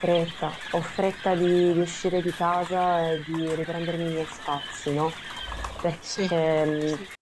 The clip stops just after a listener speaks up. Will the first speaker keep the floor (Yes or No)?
Yes